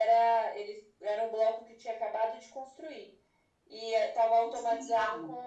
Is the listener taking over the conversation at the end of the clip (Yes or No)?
No